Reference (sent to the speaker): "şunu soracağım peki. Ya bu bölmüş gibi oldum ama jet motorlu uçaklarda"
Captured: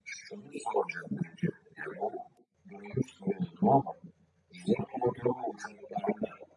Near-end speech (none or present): none